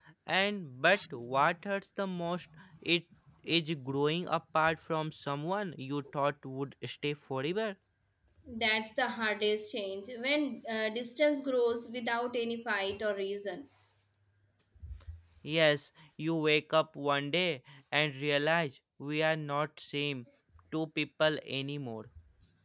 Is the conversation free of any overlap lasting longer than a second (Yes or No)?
Yes